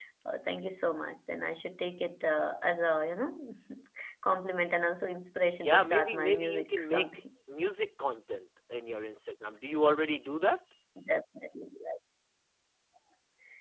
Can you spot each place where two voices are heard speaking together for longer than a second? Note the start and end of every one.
5.6-7.1

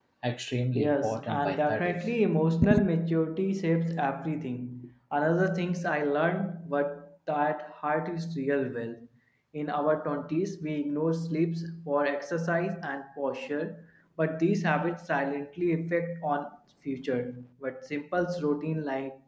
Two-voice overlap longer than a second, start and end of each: 0.7-2.0

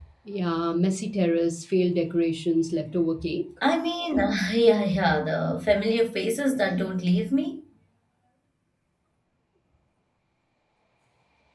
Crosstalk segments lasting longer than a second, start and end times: none

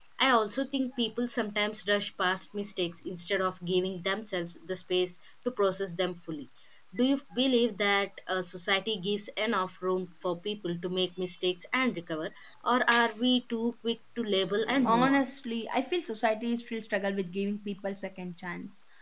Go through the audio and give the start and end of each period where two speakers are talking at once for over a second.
none

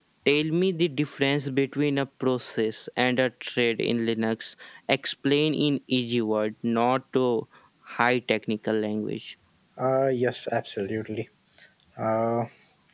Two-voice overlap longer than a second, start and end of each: none

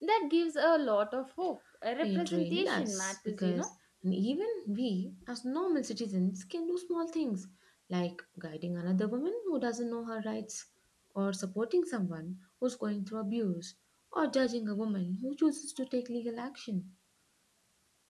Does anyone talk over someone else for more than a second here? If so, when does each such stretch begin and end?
2.0-3.7

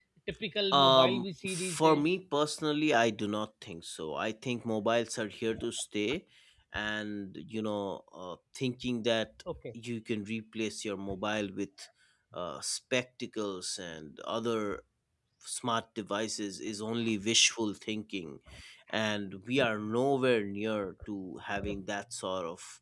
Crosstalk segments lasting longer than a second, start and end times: 0.7-2.0

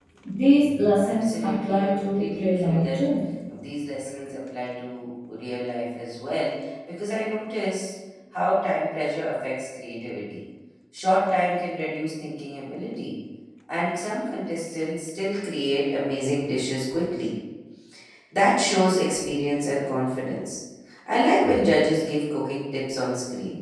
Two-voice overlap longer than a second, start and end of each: 1.0-3.1

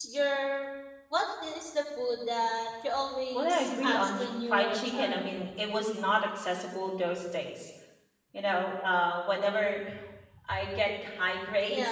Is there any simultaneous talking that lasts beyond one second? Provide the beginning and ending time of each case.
3.3-5.3

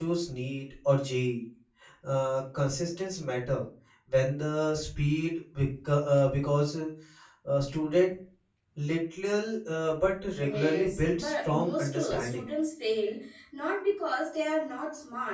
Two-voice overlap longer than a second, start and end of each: 10.4-12.4

